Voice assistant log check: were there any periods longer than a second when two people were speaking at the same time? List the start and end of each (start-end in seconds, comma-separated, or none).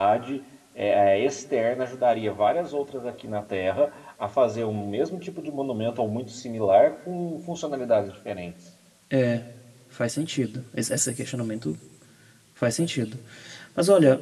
none